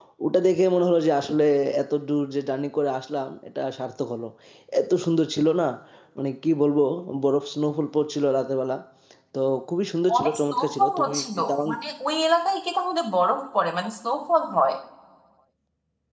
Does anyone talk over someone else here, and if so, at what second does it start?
10.2 s

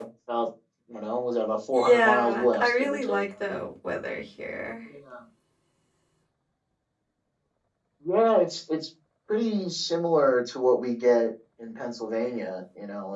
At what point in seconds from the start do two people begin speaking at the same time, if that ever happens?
1.7 s

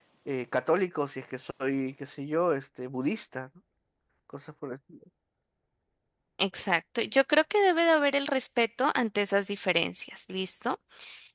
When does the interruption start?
none

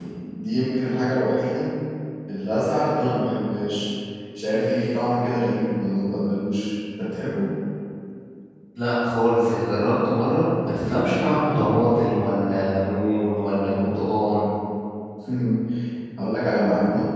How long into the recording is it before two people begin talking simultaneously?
none

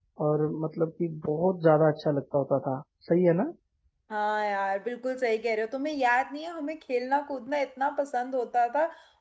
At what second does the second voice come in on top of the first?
none

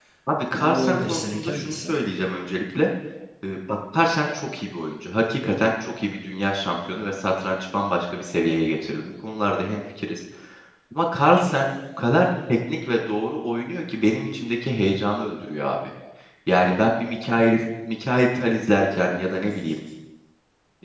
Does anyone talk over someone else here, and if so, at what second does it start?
0.6 s

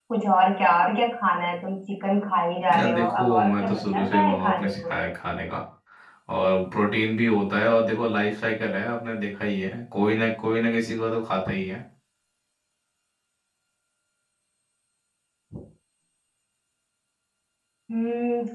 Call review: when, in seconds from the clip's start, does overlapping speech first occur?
2.7 s

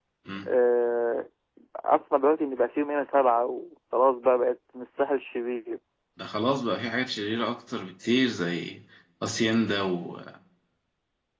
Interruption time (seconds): none

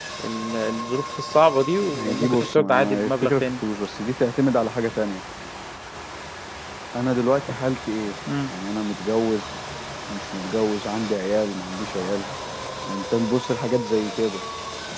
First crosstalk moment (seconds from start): 1.9 s

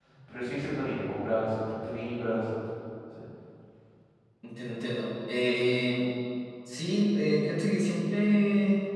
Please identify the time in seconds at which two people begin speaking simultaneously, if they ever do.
none

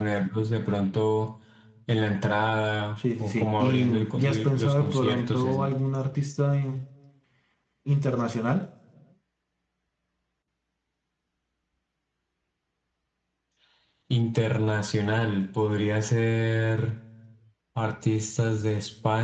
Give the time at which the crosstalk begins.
3.2 s

